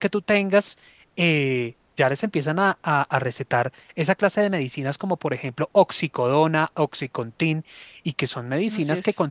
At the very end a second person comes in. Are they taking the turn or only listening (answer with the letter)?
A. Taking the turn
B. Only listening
B